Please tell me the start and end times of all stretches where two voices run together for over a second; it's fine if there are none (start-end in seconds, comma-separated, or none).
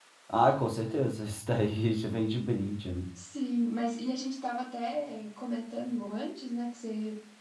none